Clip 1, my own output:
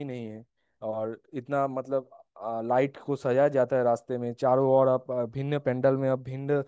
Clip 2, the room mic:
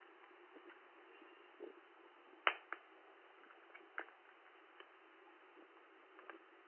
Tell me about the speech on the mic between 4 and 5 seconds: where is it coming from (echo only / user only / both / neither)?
neither